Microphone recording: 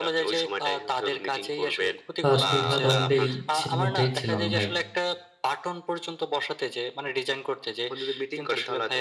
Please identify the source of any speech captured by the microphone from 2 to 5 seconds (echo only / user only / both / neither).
both